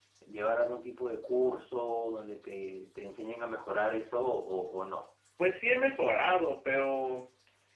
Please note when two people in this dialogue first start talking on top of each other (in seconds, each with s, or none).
none